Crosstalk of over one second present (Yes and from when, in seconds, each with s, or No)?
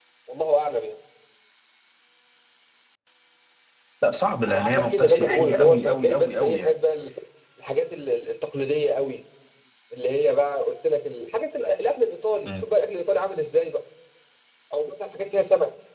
Yes, from 4.5 s